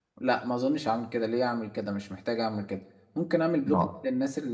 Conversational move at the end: listening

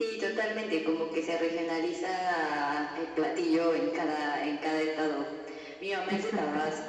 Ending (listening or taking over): listening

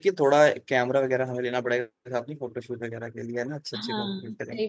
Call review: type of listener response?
taking over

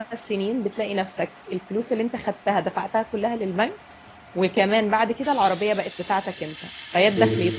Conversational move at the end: listening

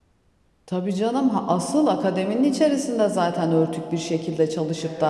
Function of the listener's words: listening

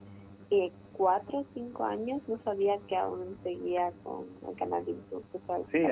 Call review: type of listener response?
taking over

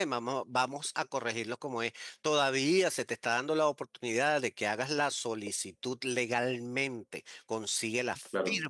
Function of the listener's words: listening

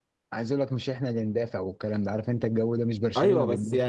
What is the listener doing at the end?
taking over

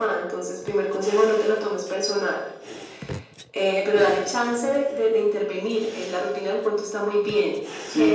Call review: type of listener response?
taking over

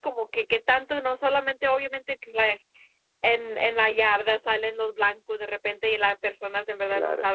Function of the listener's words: listening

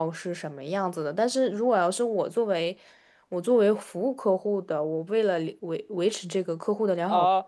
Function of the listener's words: taking over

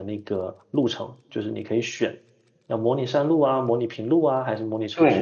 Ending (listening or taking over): taking over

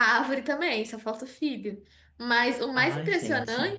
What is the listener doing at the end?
listening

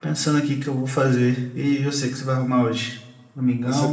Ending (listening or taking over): taking over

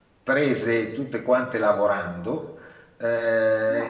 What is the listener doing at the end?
listening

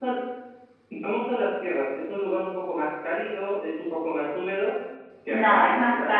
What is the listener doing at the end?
taking over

